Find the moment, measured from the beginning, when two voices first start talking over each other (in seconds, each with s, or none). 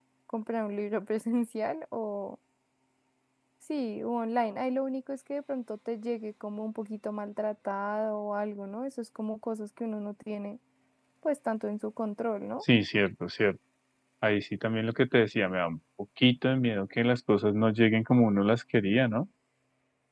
none